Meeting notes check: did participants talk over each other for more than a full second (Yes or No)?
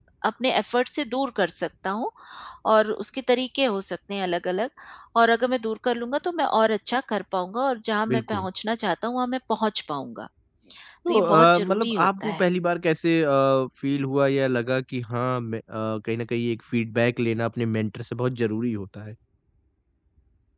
Yes